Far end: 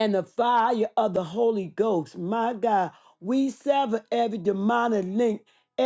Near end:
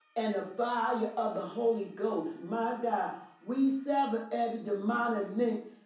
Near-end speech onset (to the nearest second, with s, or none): none